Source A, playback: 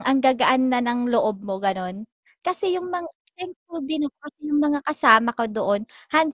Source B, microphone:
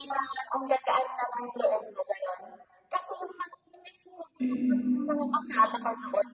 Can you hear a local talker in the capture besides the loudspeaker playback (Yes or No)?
Yes